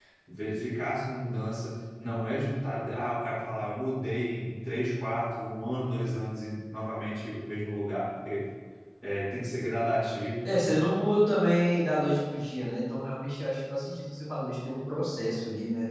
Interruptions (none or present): none